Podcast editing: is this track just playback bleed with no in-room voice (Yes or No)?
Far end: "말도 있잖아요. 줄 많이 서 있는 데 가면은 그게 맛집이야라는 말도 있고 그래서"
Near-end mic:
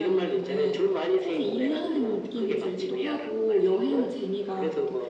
No